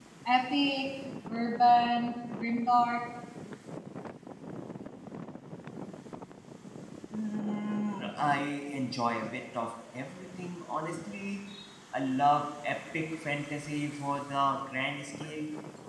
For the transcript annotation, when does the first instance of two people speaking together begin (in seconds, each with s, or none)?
none